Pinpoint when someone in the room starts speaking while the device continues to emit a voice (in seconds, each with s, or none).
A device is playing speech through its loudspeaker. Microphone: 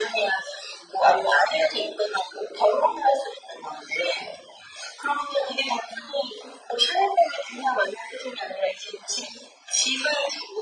none